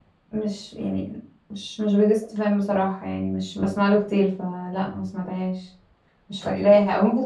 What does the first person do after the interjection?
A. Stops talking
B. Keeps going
B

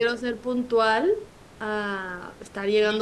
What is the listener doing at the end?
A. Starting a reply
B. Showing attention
A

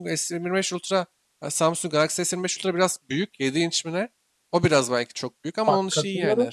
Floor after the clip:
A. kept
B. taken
B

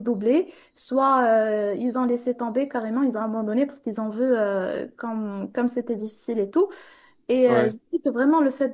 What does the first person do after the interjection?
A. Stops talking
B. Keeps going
B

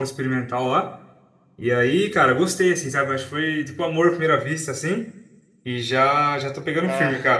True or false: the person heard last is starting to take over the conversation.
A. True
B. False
B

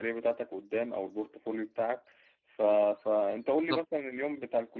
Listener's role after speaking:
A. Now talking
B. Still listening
B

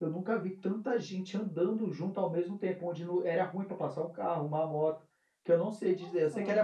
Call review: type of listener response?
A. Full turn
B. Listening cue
B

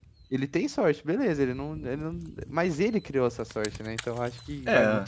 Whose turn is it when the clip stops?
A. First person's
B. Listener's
A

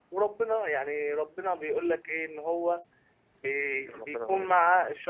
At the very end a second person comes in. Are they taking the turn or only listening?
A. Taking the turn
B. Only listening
B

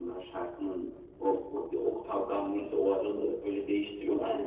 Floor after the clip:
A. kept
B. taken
B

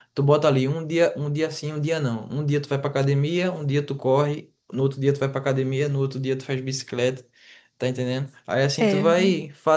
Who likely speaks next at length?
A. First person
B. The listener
A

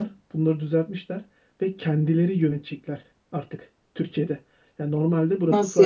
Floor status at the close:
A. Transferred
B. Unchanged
B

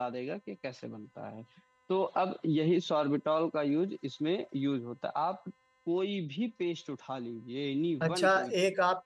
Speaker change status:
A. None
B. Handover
B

